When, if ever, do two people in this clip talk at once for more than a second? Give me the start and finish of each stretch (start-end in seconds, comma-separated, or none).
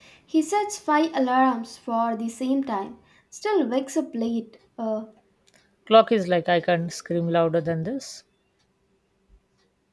none